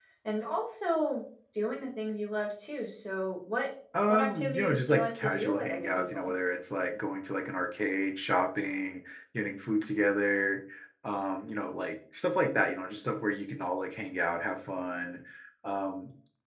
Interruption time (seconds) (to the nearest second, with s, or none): 4 s